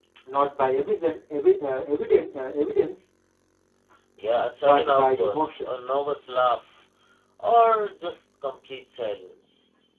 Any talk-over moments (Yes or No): Yes